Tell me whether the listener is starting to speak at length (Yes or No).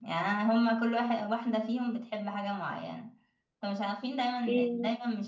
No